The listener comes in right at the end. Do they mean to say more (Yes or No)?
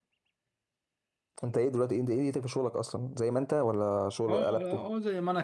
Yes